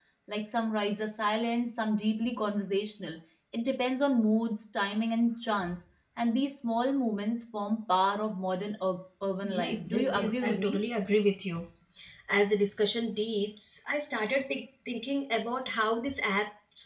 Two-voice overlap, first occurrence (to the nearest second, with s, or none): 9 s